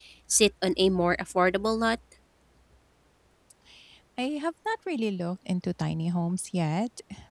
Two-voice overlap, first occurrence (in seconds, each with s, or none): none